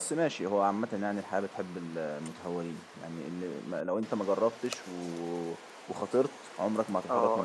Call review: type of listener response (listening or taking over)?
taking over